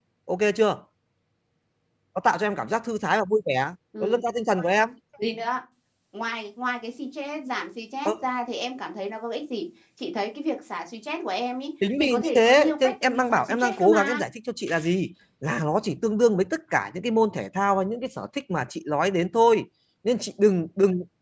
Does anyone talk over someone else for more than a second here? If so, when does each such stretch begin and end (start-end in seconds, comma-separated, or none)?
12.0-14.2